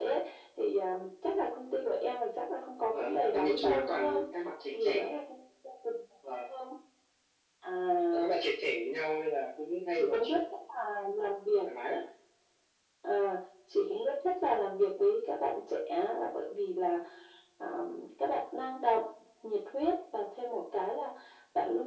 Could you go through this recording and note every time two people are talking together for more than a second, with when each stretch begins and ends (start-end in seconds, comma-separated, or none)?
2.9-4.2